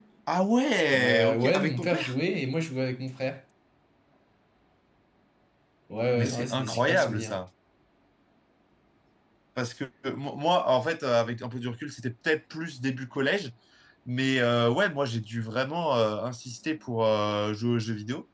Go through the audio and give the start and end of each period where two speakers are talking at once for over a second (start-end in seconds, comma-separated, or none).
0.9-2.1, 6.2-7.4